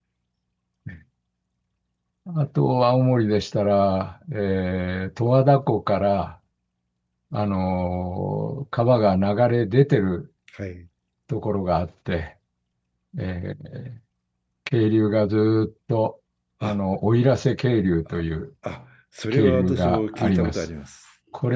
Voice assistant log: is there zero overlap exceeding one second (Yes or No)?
No